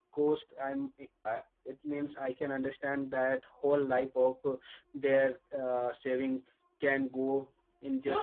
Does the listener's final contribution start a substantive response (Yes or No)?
Yes